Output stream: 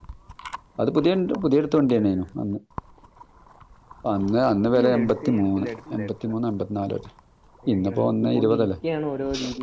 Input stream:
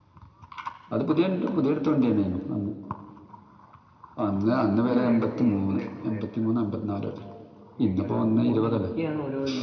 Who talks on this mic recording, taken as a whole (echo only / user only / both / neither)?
echo only